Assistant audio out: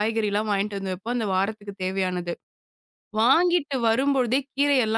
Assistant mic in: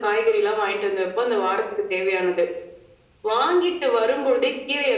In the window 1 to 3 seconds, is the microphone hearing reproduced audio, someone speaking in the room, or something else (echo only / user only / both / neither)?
echo only